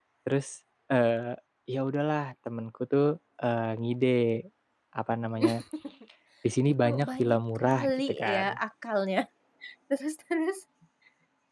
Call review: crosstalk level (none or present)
present